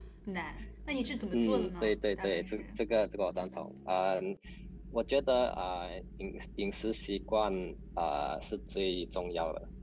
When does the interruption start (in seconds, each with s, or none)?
1.3 s